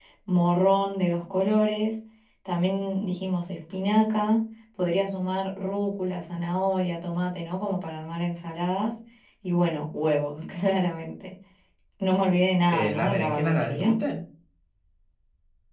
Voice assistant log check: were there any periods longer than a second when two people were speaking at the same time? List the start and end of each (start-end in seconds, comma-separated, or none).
12.7-14.0